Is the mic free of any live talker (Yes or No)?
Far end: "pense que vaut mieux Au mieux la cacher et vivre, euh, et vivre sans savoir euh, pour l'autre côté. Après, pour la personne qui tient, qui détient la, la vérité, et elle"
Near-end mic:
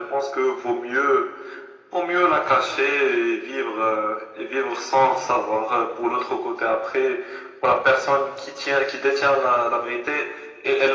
Yes